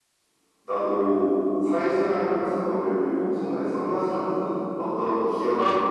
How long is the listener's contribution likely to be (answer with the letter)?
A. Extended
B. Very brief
B